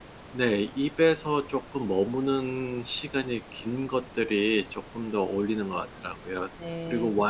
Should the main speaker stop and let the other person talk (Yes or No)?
No